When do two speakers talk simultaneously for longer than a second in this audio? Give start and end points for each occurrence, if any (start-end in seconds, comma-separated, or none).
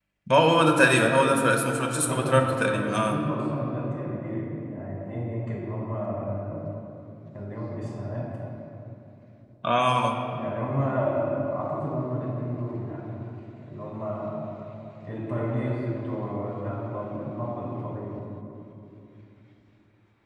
1.9-3.2